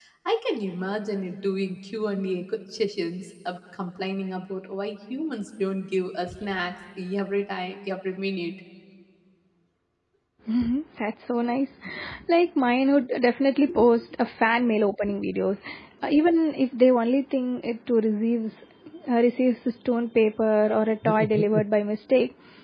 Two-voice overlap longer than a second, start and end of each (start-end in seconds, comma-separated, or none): none